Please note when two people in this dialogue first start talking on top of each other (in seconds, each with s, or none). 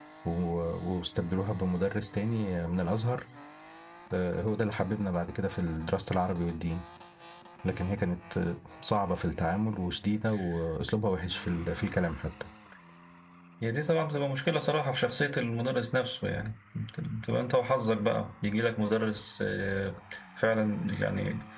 none